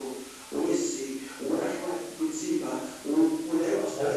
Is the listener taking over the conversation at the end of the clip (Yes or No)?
No